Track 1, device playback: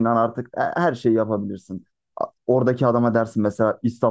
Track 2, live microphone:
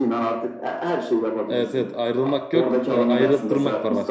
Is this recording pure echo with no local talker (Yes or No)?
No